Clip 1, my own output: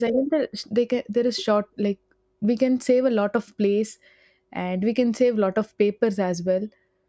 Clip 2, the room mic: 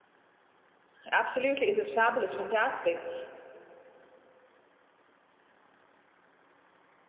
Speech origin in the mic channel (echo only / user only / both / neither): user only